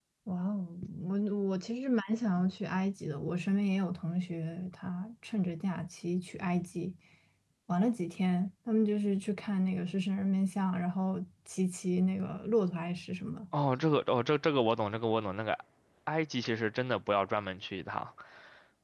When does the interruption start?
none

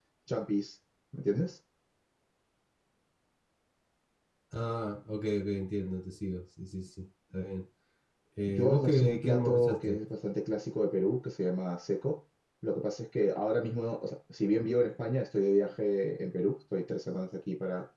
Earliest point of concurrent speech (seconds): 8 s

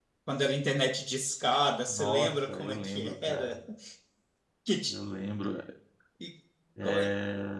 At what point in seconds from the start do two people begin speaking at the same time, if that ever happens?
2 s

